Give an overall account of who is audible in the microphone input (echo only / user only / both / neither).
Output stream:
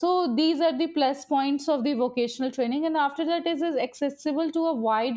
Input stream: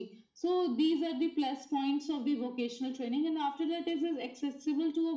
echo only